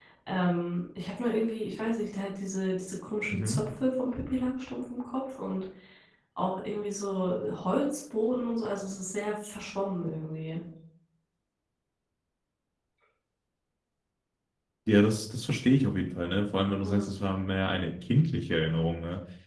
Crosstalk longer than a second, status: none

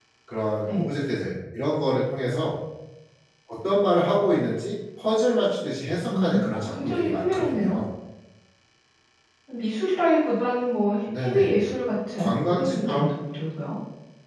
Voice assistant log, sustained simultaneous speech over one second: present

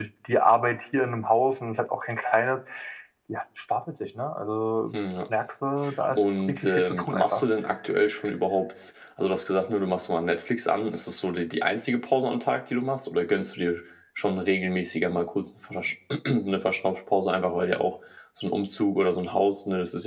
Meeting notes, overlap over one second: present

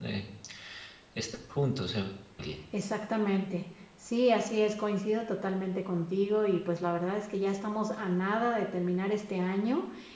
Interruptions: none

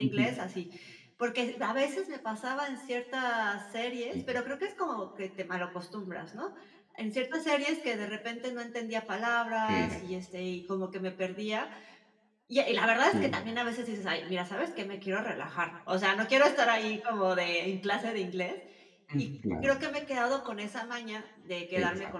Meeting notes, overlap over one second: none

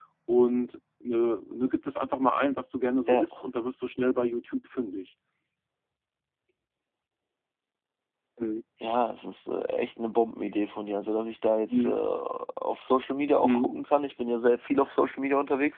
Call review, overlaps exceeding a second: none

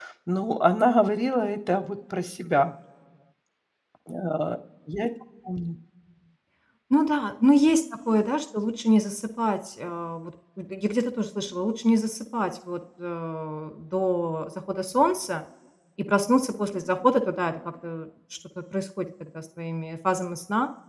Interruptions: none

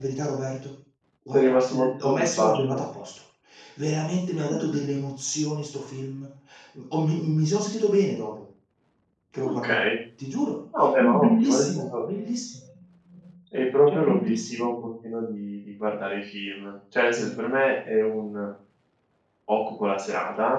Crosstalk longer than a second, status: present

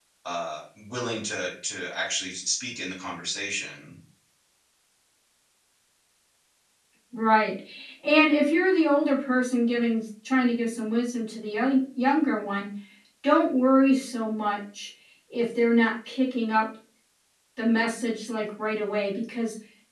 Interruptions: none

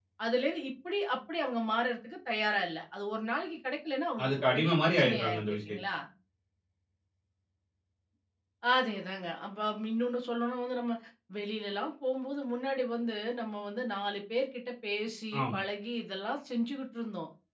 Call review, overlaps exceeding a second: present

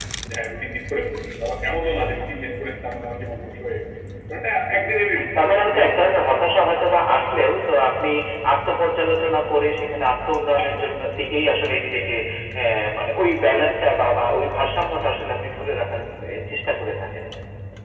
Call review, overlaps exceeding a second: present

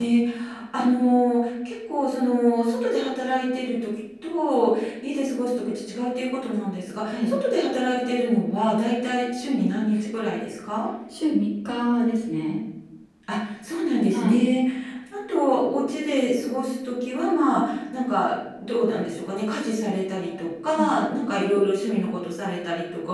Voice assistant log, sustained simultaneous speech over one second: none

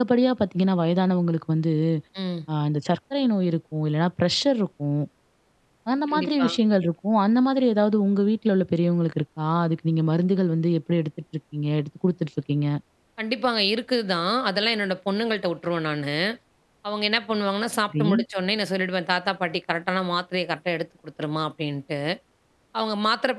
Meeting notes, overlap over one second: none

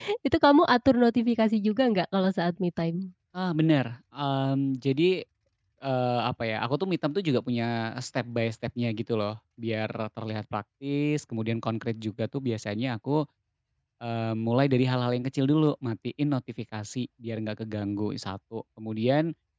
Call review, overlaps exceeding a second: none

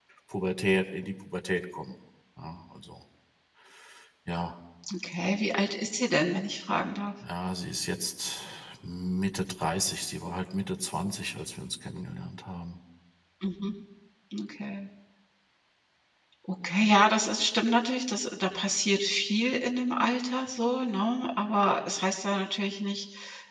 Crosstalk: none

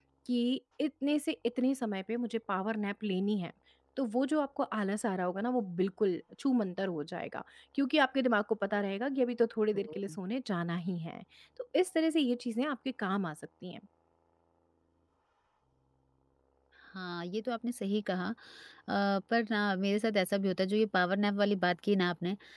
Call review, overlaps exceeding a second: none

